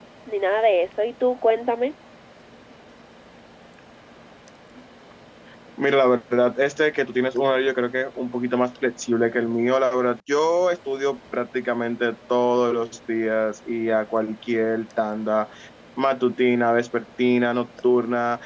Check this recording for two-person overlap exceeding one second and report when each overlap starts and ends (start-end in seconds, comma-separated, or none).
none